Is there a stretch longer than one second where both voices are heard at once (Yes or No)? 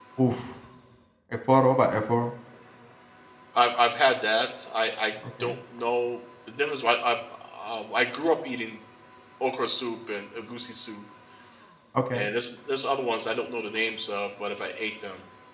No